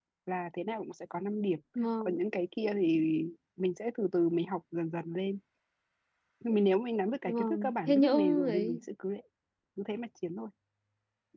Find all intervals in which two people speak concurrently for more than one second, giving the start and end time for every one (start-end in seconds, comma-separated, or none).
7.2-8.8